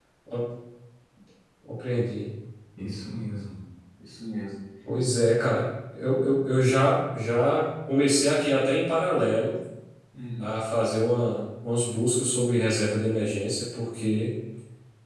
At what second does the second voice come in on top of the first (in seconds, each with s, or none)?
none